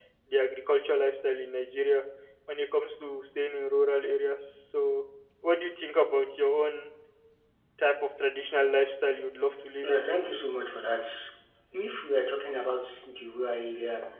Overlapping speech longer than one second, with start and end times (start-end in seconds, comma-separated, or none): none